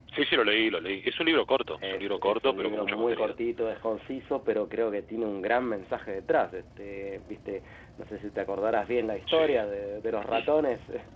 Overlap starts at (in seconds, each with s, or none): 1.8 s